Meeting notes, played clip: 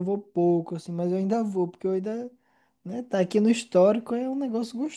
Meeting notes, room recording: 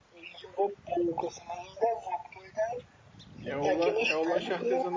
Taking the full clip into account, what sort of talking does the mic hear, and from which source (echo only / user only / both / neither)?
both